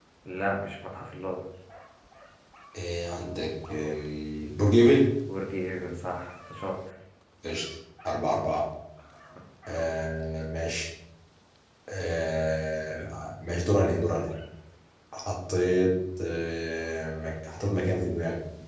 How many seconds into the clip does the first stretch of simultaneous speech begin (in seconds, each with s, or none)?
none